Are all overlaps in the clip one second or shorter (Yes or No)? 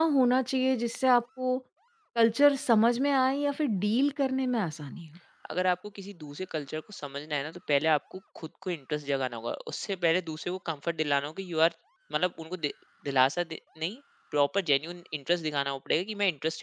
Yes